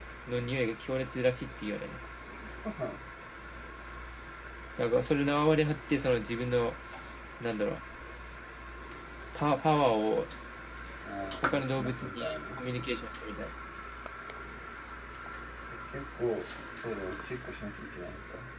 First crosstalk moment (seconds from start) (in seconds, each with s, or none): 11.4 s